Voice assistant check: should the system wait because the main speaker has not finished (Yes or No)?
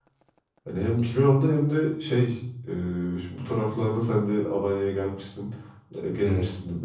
Yes